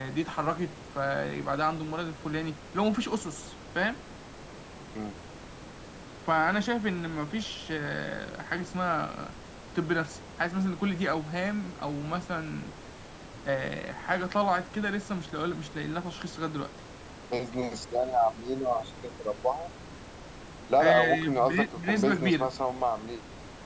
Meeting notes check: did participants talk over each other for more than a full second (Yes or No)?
Yes